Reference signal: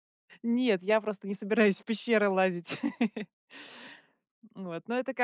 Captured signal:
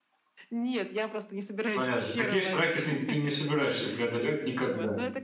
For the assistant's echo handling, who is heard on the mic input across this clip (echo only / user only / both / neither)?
both